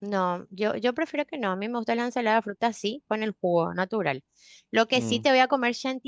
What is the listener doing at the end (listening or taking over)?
listening